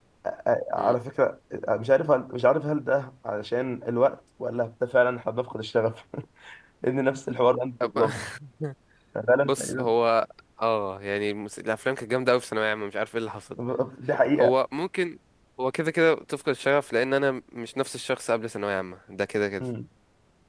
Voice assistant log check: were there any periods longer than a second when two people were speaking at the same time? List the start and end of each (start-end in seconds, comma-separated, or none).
none